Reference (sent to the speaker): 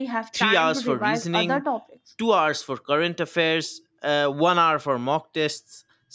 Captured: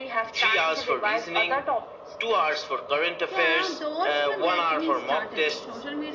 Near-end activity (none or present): present